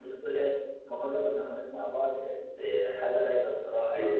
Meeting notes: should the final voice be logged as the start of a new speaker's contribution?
Yes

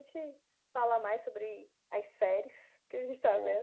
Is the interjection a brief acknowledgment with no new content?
Yes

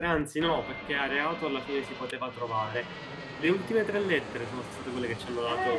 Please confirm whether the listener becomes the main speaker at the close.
Yes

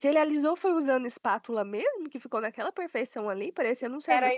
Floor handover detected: Yes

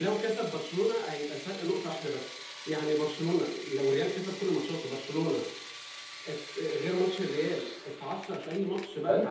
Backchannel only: No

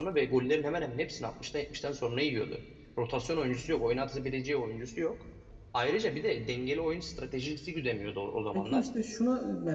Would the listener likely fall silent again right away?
No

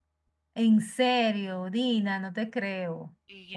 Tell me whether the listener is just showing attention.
No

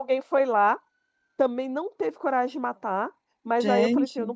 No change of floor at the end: Yes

